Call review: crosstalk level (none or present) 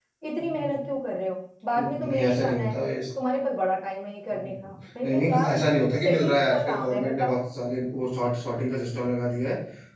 present